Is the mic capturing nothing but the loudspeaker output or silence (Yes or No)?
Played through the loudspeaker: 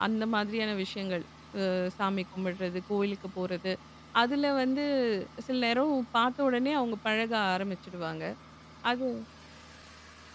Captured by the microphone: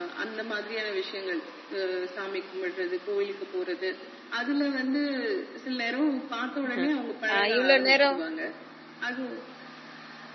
No